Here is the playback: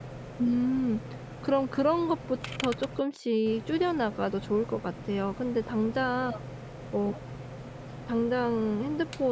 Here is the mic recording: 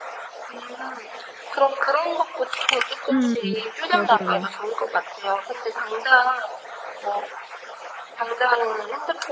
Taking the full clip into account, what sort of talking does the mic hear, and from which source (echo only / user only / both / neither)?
both